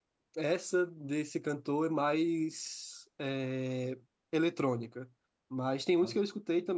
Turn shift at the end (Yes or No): No